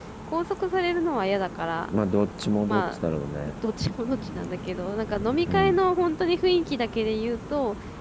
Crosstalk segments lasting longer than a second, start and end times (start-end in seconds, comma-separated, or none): none